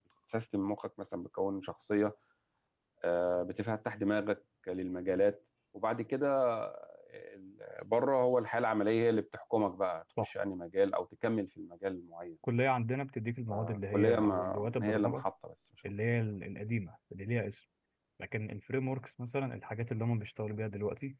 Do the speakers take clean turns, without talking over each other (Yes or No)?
No